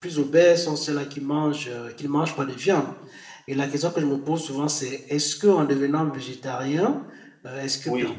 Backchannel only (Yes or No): Yes